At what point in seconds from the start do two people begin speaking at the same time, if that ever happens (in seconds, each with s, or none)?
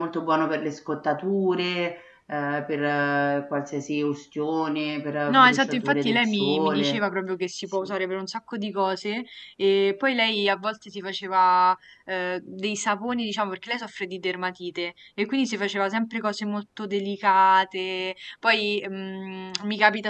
5.3 s